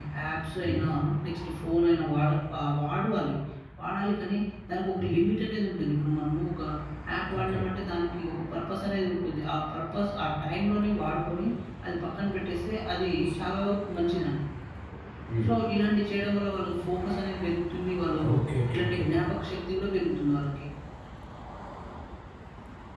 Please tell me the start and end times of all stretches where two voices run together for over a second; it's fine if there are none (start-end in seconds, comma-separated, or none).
none